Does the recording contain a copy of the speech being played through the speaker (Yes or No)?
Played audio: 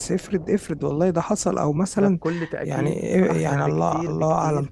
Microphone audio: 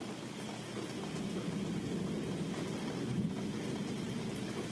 No